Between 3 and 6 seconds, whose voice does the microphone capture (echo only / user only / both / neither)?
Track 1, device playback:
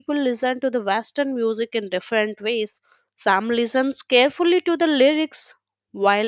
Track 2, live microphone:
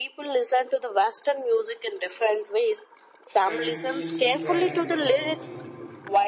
both